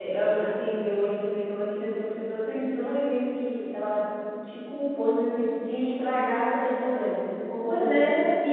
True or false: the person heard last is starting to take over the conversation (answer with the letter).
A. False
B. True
B